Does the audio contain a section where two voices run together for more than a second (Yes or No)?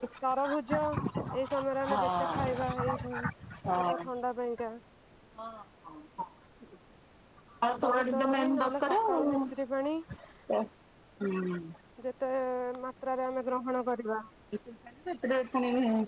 Yes